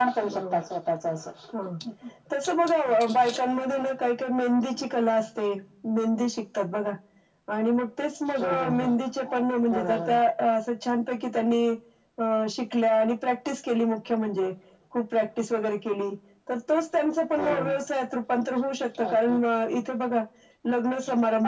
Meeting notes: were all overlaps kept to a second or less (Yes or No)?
Yes